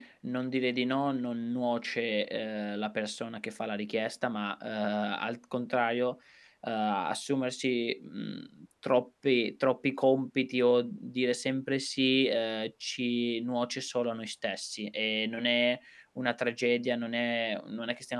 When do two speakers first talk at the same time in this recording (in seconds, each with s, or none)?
none